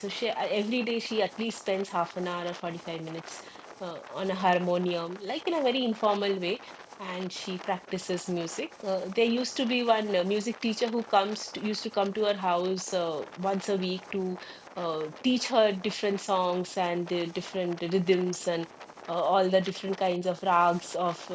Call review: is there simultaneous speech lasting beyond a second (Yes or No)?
No